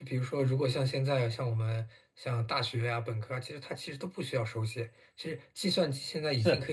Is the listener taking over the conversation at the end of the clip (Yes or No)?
No